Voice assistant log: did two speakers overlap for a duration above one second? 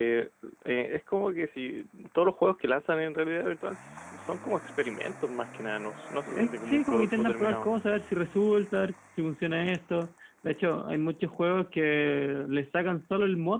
Yes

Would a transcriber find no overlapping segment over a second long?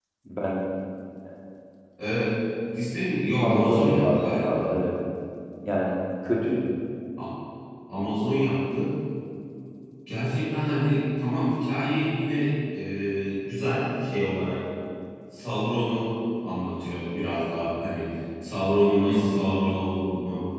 No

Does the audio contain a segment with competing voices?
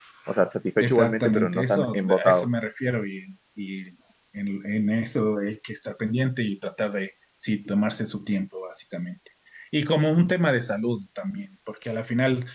Yes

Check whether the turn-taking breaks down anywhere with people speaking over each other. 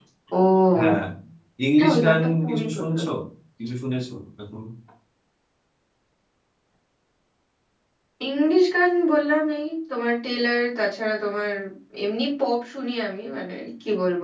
Yes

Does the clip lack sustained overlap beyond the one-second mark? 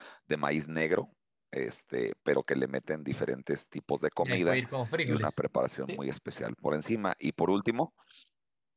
Yes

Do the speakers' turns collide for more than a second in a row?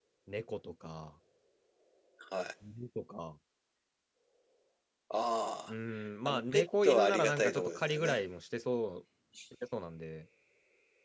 Yes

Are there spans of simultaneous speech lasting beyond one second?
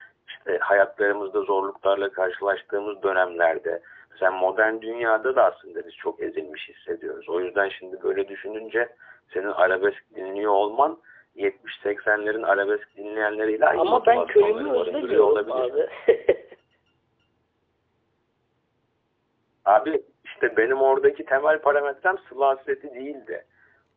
Yes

